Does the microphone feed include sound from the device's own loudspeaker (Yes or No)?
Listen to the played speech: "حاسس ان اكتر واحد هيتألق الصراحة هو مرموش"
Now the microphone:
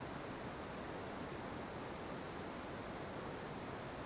No